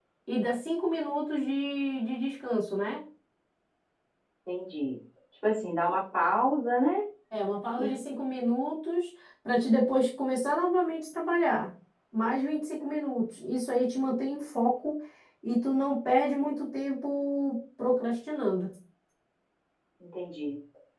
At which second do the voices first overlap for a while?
none

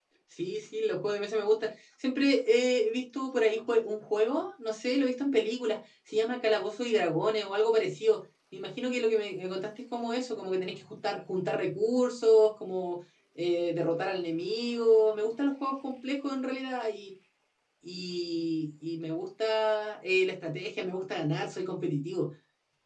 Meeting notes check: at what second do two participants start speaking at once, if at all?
none

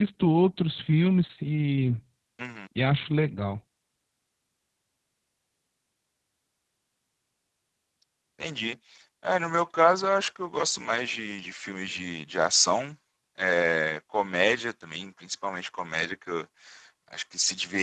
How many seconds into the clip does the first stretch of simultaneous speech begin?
none

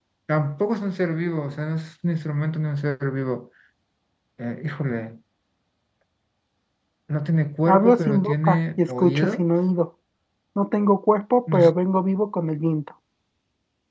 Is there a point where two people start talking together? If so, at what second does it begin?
7.7 s

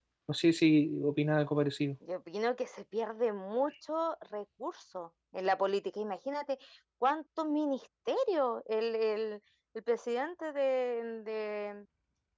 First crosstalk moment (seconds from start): none

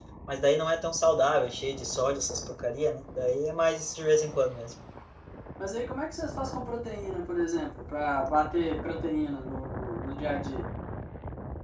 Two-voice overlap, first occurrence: none

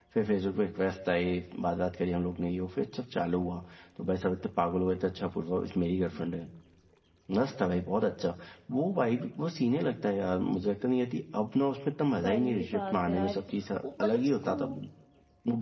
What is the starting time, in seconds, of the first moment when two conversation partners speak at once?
12.1 s

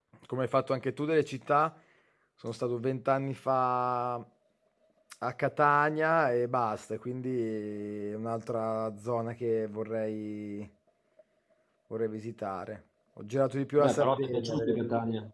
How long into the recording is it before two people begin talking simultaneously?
13.8 s

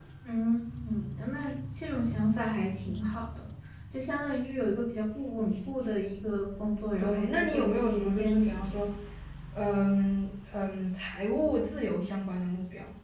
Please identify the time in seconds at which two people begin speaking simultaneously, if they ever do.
7.0 s

